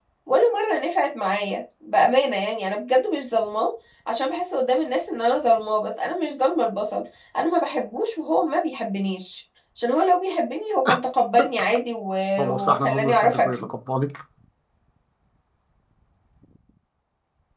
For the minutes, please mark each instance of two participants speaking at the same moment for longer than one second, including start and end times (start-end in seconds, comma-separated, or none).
12.4-13.7